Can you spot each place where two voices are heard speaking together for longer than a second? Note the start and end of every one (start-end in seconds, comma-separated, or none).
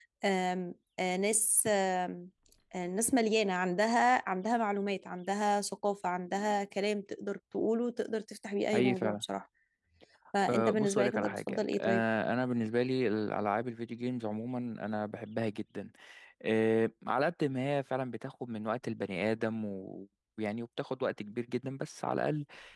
10.5-12.0